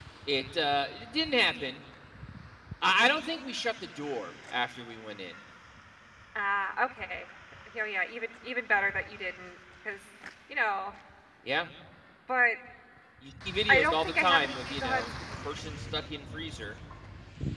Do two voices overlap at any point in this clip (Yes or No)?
Yes